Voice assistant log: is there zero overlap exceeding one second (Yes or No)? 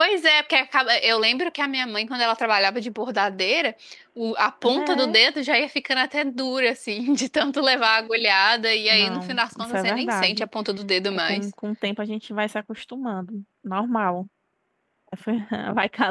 No